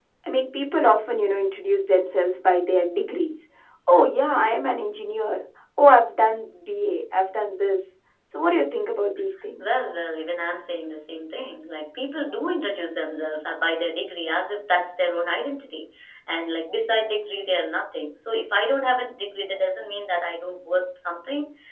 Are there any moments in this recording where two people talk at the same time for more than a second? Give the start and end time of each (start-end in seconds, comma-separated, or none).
none